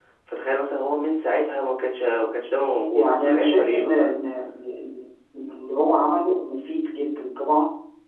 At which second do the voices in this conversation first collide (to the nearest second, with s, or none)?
3 s